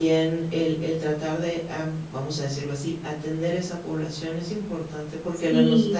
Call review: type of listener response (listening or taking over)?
listening